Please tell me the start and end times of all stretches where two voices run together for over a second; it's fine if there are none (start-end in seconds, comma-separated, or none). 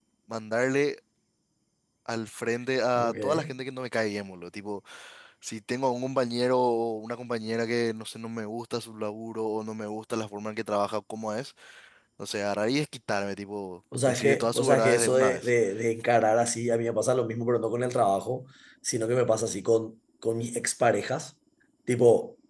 14.1-15.5